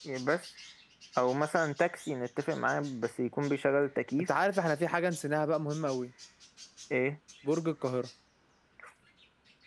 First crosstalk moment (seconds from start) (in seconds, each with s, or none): none